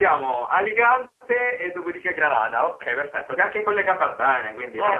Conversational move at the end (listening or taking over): taking over